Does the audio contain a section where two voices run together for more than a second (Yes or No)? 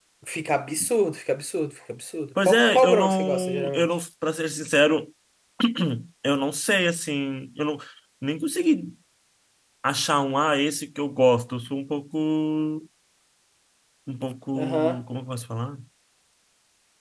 Yes